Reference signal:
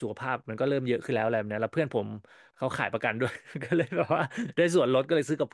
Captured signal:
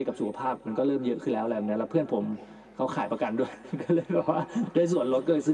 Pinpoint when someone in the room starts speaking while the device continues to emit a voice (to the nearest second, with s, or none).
none